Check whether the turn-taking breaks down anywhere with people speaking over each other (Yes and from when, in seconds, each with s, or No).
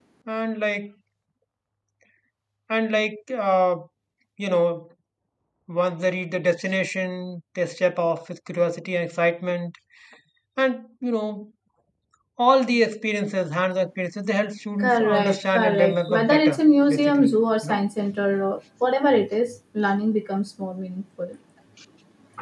Yes, from 14.8 s